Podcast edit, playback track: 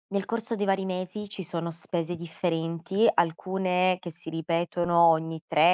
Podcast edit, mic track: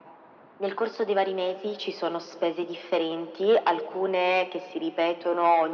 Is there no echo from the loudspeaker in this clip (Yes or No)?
No